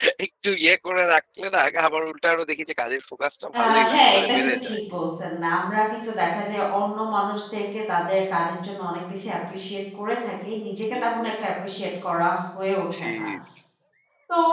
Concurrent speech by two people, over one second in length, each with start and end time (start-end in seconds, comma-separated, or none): 3.6-4.8